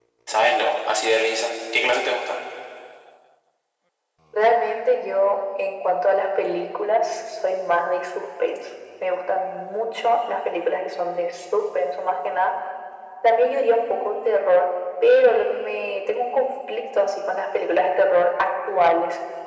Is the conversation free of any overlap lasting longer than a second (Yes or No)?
Yes